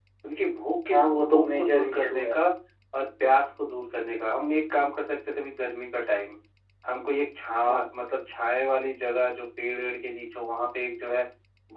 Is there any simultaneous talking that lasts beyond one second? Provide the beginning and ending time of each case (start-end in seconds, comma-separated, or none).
0.9-2.4